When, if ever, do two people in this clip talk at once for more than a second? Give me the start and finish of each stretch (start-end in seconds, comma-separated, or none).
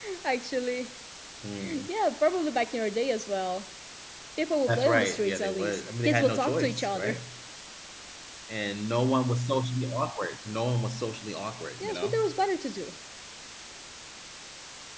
4.7-7.2